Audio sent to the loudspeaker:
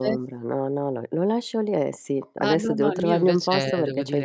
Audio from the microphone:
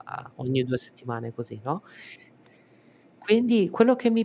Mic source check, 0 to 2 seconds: user only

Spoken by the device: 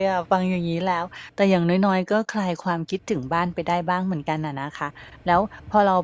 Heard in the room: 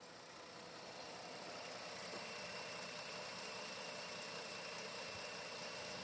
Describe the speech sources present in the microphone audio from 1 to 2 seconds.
neither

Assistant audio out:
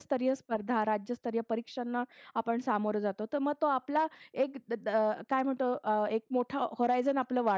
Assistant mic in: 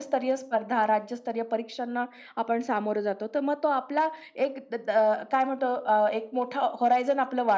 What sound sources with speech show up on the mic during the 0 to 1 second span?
echo only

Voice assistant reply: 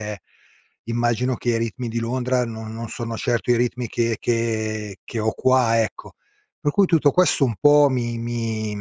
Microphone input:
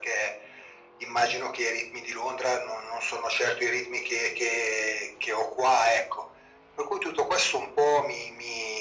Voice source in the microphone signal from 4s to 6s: echo only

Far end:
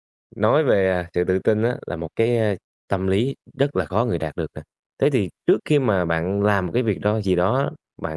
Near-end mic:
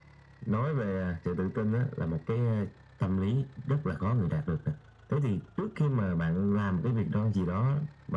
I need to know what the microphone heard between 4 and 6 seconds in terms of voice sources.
echo only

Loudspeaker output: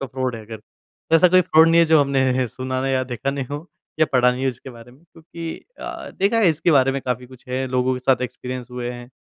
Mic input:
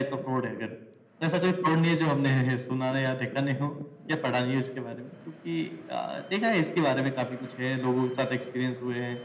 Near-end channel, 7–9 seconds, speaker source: echo only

